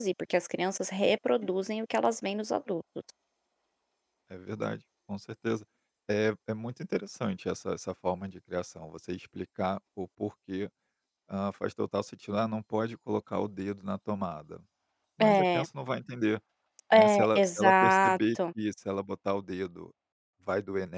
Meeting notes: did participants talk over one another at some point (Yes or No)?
Yes